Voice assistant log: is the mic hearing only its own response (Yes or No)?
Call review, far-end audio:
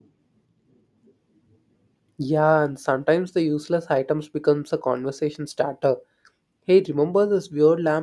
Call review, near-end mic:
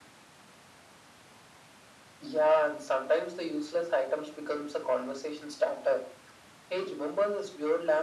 Yes